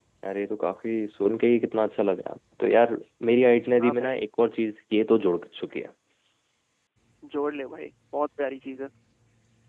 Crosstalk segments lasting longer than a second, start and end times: none

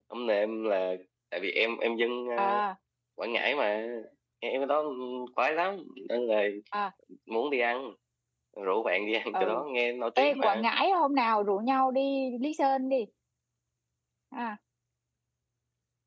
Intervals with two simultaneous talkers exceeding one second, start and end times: none

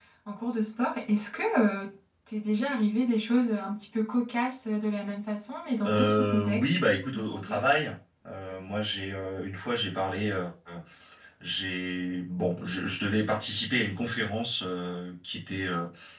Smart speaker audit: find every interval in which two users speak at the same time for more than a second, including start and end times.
5.8-7.6

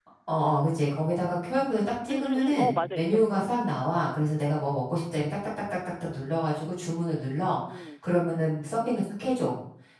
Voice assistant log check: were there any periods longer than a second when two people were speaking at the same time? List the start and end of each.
2.1-3.5

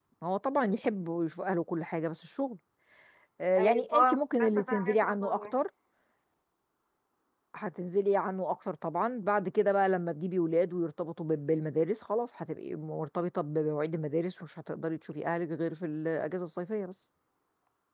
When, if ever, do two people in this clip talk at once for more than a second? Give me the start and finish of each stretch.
3.6-5.5

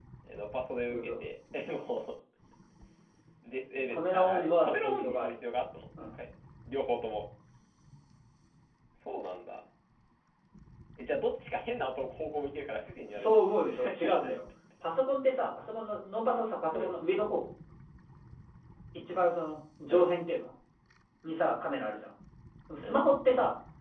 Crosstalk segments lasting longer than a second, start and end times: 3.7-5.3

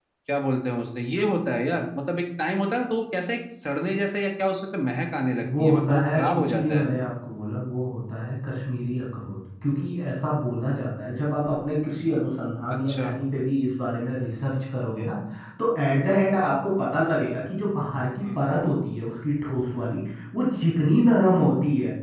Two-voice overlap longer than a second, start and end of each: 5.4-6.9

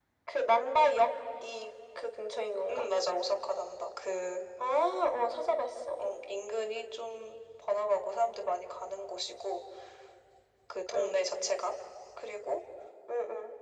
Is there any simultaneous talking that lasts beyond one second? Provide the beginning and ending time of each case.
none

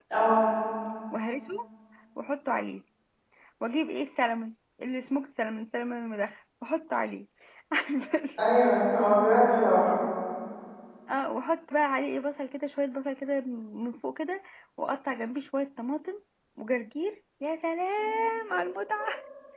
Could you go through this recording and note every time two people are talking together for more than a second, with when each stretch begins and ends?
none

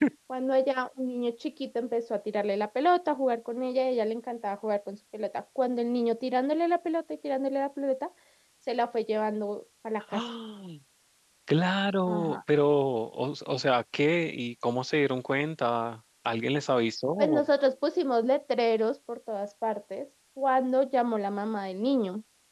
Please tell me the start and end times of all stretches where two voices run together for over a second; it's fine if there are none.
none

